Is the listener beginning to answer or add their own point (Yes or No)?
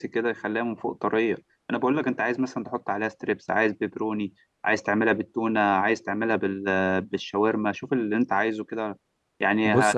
No